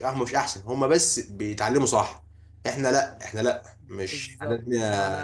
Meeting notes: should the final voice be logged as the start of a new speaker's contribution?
Yes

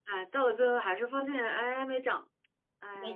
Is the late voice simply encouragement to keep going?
No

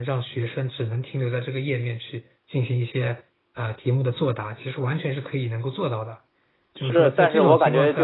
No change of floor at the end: No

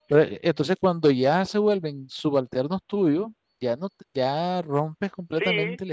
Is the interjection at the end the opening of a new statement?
Yes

